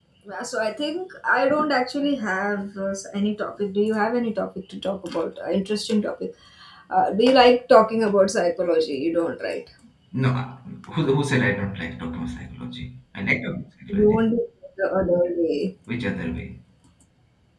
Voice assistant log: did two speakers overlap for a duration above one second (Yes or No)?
No